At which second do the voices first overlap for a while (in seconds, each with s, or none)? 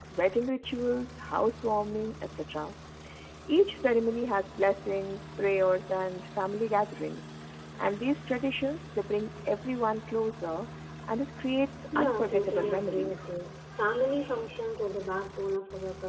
11.9 s